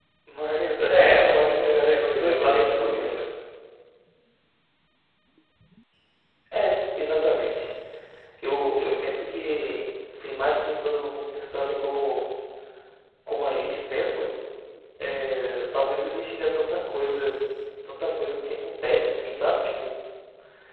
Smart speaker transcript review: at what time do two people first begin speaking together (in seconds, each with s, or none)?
0.9 s